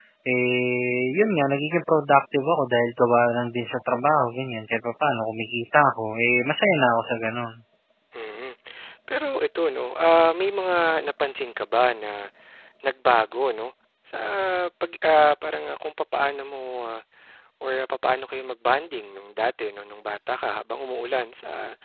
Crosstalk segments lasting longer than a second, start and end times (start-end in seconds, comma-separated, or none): none